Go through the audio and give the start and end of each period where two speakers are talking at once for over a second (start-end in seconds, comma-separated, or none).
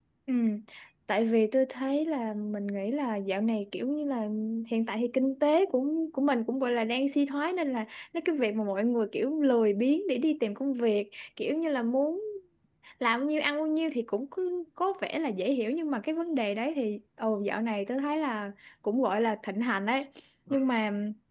none